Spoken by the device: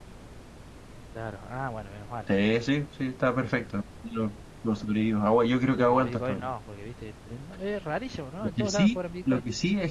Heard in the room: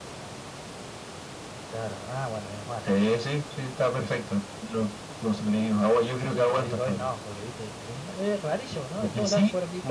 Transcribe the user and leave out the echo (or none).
none